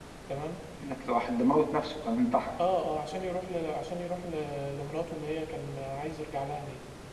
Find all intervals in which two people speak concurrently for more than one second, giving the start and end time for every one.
none

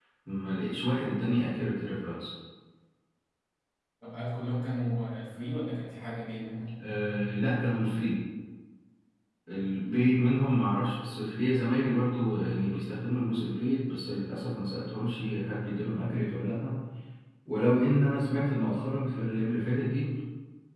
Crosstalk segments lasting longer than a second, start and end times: none

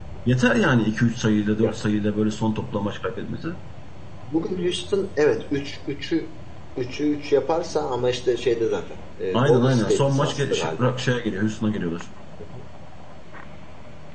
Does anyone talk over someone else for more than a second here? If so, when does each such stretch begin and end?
9.3-11.0

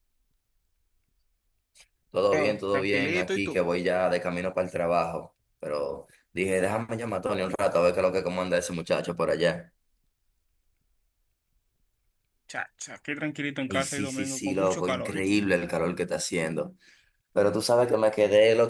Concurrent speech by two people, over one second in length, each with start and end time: 2.3-3.6, 13.7-15.4

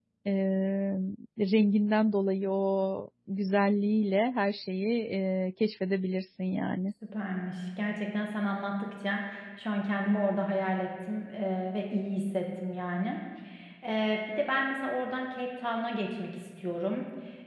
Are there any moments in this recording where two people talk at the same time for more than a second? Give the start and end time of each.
none

